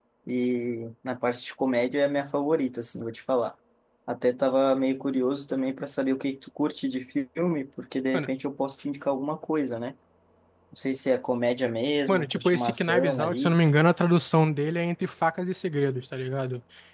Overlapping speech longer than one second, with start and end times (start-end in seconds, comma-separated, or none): 12.1-13.6